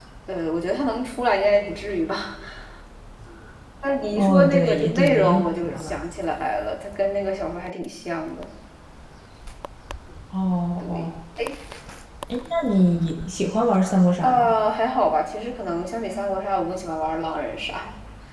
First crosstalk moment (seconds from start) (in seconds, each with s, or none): 4.2 s